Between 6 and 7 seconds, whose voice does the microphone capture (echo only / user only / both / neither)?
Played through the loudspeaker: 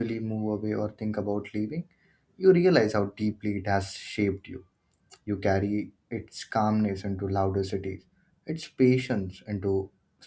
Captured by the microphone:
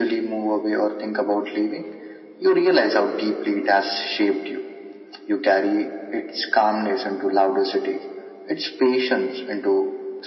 echo only